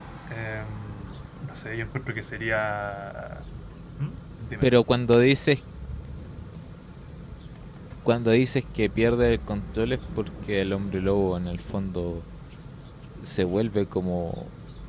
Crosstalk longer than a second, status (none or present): none